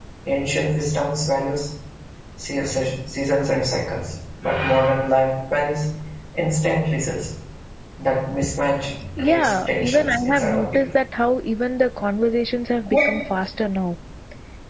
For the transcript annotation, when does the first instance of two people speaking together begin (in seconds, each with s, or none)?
9.2 s